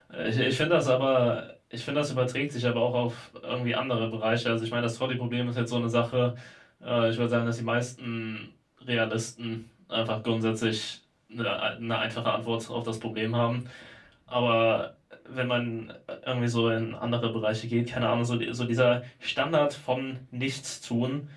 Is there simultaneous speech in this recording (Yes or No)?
No